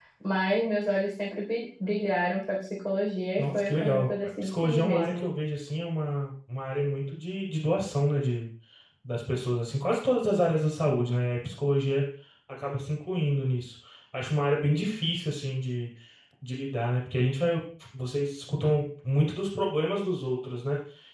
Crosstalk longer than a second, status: present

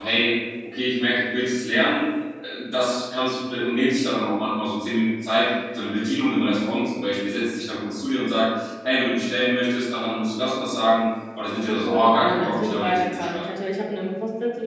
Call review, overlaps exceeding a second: present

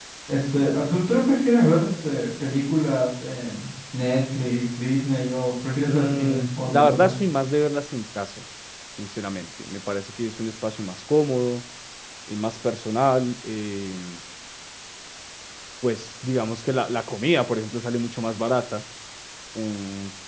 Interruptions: present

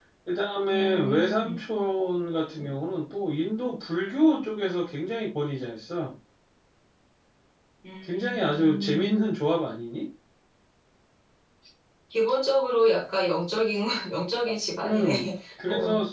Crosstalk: present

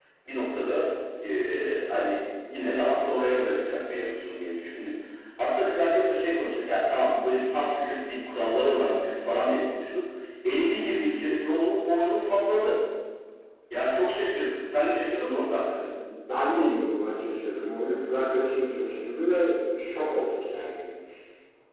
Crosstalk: none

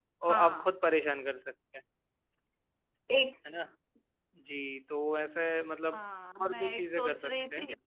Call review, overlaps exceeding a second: present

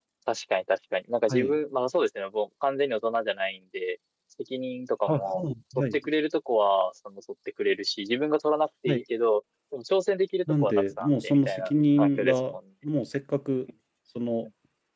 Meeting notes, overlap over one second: present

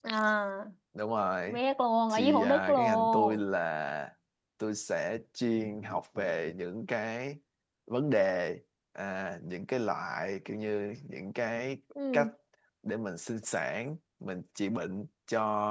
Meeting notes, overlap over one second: present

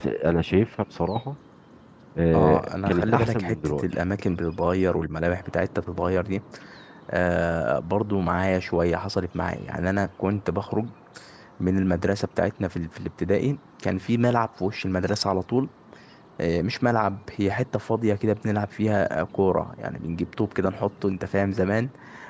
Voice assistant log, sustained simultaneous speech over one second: present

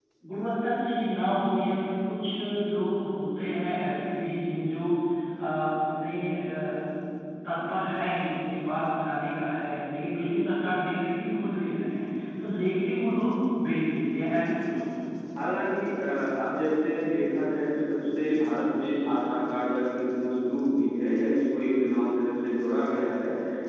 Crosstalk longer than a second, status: none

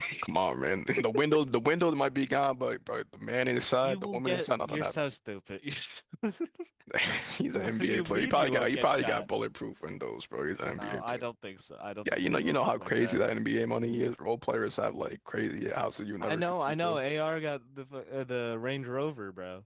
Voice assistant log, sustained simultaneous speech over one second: present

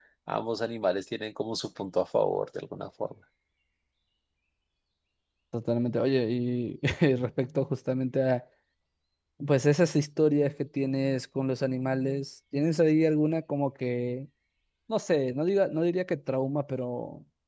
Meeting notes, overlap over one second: none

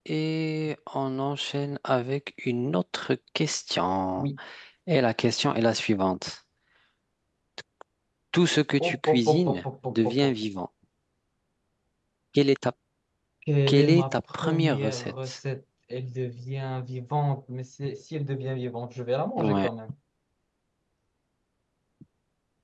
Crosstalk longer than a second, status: present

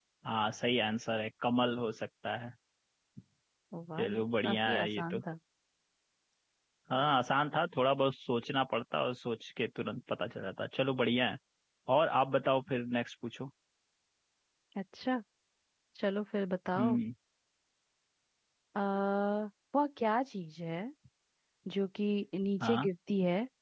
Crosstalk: present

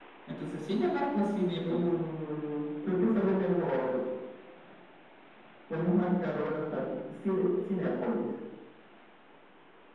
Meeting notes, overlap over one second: none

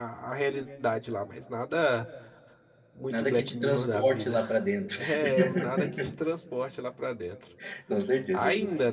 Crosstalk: present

